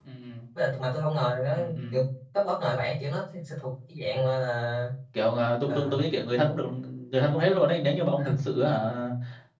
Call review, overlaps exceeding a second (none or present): none